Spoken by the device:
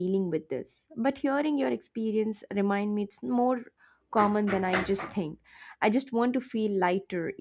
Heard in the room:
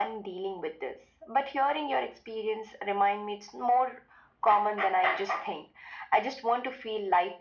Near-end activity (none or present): none